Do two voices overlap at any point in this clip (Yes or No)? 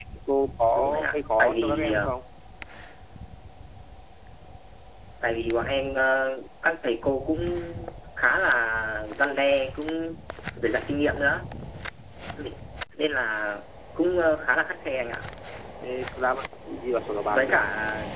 Yes